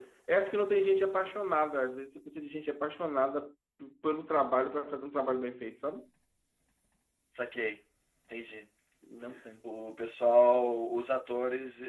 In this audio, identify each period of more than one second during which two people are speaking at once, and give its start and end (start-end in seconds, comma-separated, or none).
none